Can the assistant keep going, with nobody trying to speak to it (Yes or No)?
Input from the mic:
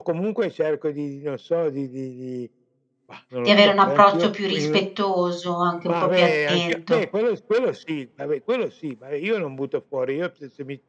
No